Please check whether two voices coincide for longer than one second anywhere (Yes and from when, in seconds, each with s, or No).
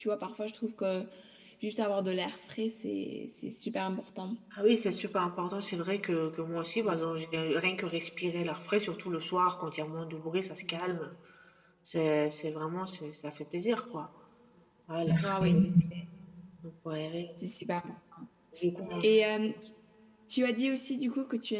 No